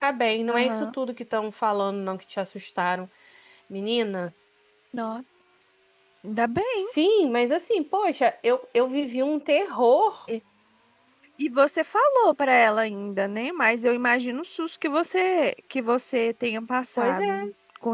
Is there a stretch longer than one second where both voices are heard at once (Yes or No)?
No